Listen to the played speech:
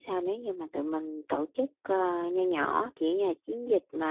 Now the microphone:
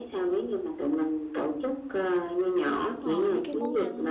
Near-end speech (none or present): present